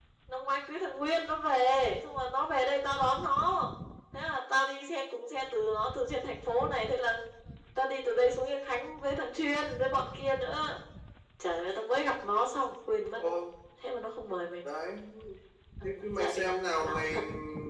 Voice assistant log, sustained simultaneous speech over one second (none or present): present